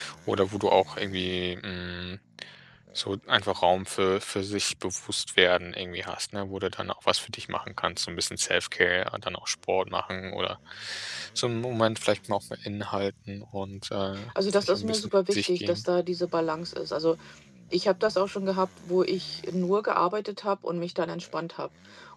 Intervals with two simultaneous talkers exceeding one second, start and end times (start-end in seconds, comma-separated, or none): 14.5-15.8